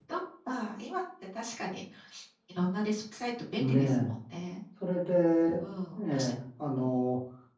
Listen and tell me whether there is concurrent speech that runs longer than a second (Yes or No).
No